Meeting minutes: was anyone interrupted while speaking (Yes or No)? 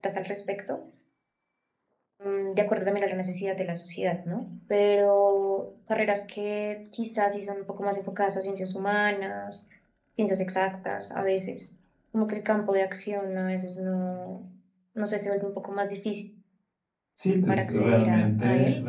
Yes